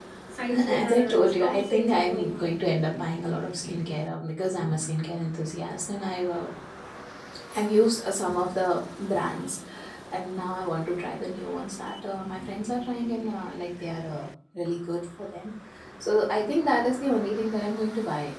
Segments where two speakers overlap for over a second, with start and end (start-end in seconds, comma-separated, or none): 0.6-2.6